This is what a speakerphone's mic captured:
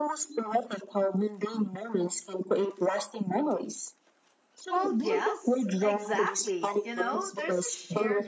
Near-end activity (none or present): present